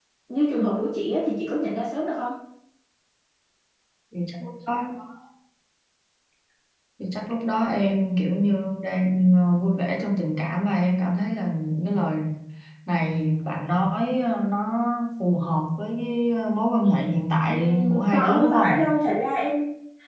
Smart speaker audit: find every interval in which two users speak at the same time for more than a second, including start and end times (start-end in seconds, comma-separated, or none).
17.5-18.9